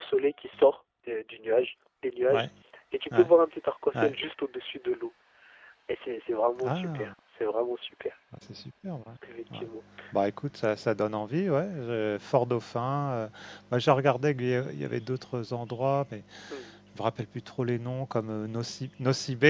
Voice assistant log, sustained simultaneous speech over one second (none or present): none